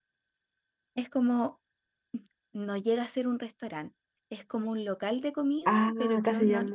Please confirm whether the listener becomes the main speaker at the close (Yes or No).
Yes